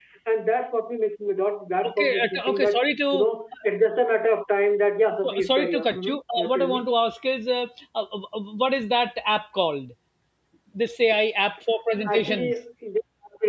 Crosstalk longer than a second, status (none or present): present